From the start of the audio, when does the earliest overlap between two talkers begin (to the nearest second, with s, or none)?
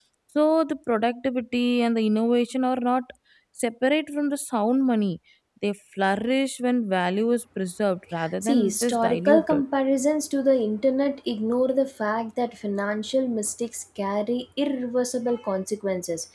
8 s